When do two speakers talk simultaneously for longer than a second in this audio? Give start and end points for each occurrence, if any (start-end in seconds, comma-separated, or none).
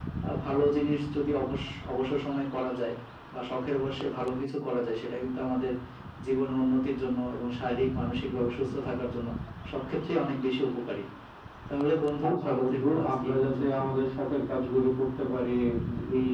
12.3-13.8